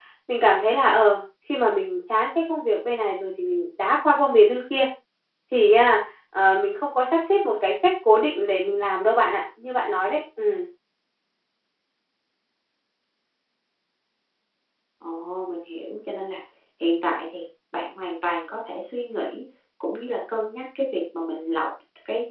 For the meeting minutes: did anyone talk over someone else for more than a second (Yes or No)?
No